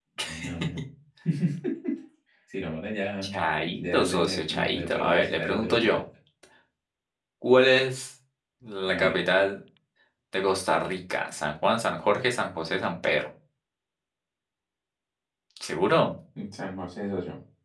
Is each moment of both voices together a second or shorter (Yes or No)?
No